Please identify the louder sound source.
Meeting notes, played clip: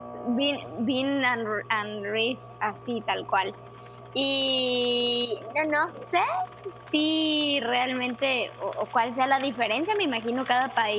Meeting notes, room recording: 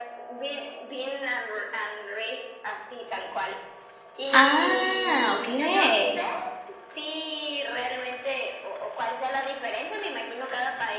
user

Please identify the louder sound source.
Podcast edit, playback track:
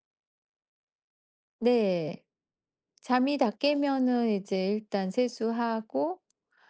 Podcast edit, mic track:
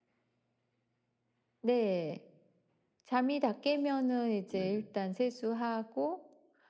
echo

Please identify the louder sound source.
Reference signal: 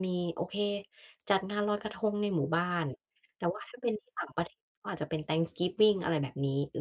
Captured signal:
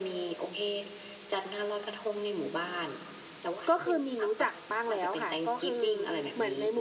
user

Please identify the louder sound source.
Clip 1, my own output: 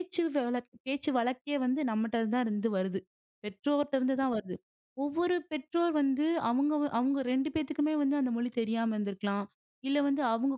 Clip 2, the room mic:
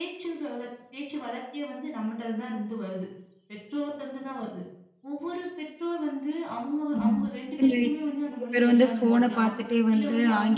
user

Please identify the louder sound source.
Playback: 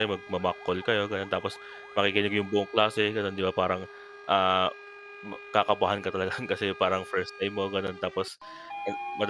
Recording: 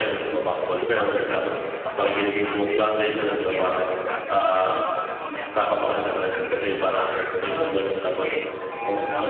echo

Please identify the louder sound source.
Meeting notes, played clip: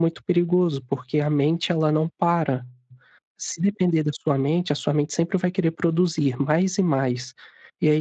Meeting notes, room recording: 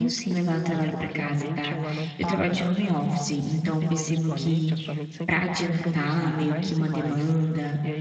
user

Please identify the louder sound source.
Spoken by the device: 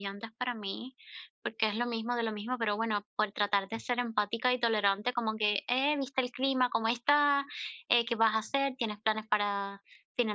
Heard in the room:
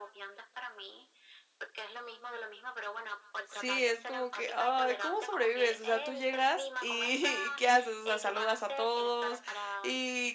user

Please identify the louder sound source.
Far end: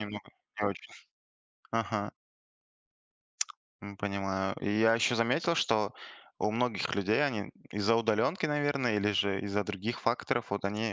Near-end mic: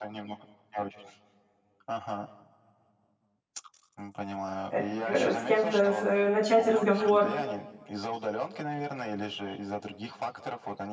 user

